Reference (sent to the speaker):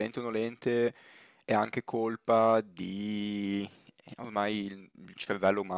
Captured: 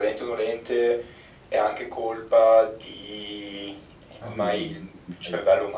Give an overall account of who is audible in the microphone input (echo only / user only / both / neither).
both